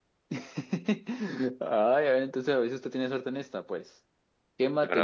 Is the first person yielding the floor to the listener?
No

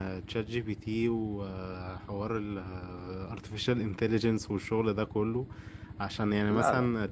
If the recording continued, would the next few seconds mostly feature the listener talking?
No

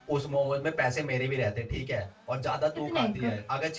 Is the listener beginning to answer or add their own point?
No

